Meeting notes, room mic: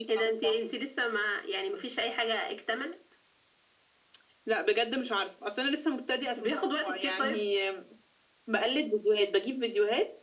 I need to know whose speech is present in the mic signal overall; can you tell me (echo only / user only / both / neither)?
echo only